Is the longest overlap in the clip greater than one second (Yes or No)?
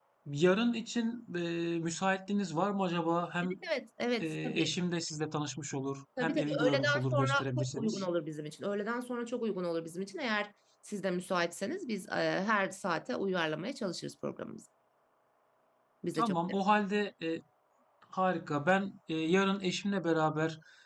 Yes